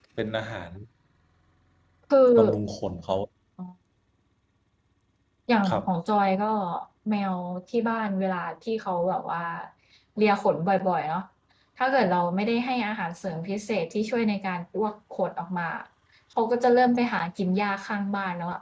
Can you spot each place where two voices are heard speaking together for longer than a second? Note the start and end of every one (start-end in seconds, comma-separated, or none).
none